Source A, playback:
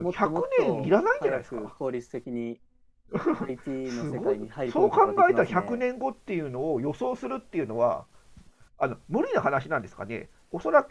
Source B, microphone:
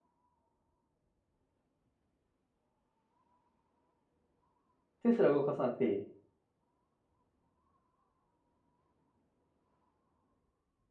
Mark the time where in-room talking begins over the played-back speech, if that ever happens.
5.0 s

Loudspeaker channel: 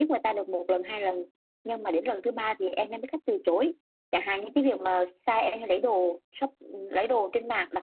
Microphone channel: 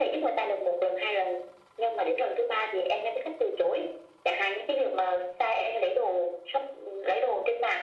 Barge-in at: none

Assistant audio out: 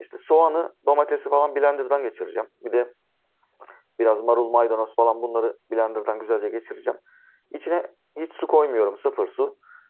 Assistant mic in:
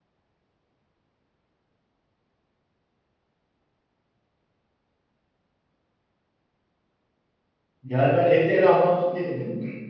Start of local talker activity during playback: 7.8 s

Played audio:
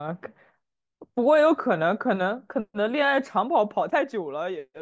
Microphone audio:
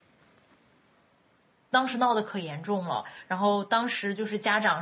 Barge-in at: 1.7 s

